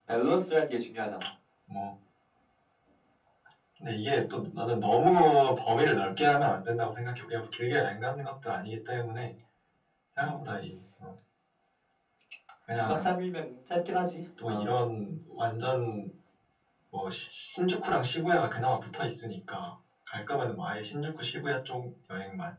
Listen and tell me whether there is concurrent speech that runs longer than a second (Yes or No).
No